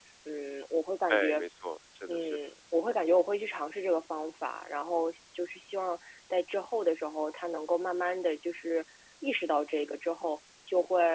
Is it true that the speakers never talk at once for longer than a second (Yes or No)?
Yes